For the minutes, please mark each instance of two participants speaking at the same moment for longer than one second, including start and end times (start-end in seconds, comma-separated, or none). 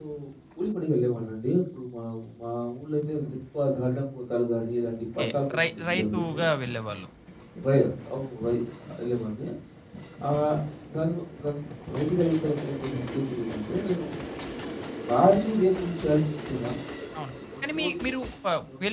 5.2-6.4